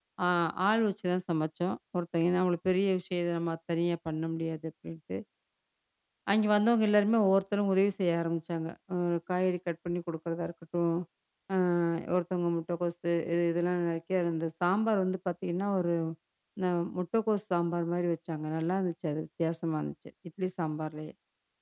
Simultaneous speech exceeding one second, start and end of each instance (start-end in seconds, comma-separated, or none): none